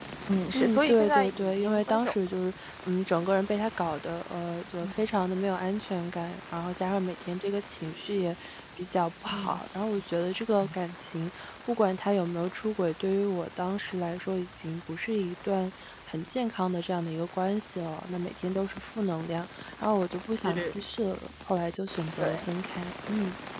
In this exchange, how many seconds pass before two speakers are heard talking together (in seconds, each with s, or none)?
0.5 s